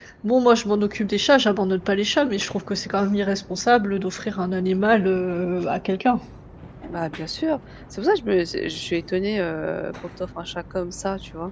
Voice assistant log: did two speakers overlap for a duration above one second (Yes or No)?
No